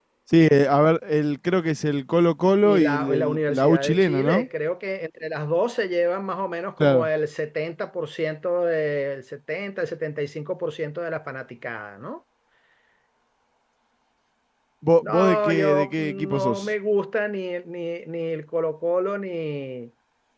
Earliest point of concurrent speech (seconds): 3 s

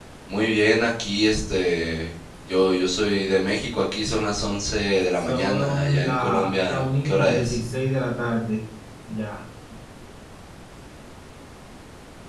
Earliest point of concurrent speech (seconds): 5 s

